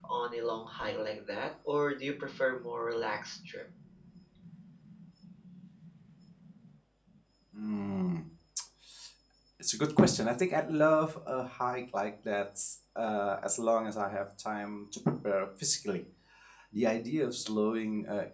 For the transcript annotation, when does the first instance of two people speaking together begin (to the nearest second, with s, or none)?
none